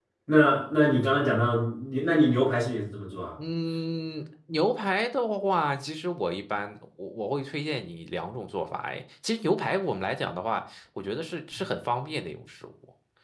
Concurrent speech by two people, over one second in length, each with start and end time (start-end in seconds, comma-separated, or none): none